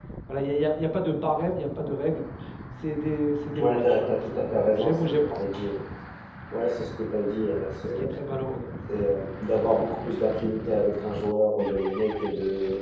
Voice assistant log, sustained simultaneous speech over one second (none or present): present